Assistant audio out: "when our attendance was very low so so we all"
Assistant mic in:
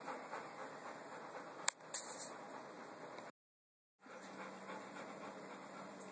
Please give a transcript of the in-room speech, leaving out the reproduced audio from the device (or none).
none